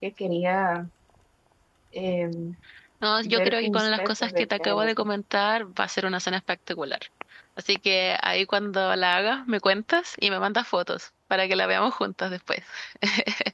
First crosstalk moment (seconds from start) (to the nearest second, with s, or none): 3 s